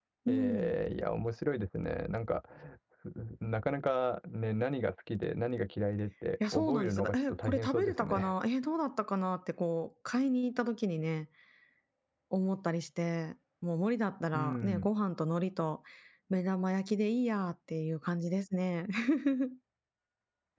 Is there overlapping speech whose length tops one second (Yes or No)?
Yes